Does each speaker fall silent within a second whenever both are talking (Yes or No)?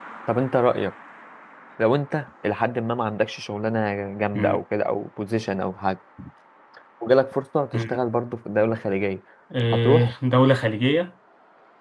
Yes